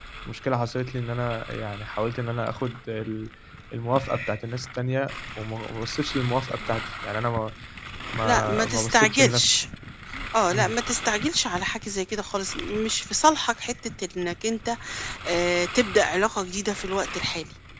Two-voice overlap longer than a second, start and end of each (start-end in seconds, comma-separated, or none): 8.2-9.6